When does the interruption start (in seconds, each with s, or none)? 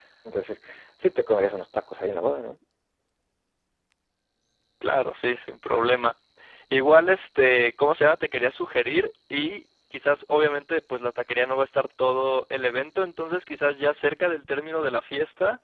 none